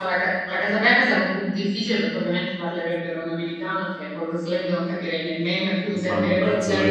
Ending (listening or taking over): taking over